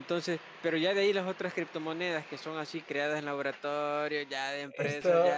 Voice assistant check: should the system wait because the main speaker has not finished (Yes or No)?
No